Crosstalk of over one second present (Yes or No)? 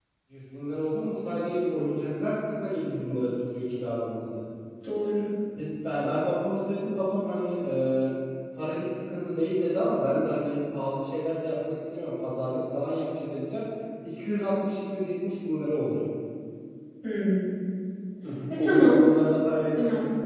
No